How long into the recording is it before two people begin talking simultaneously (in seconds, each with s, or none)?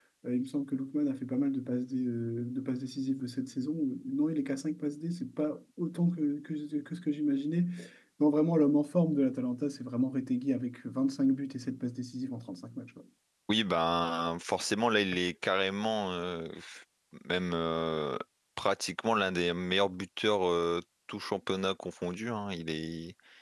none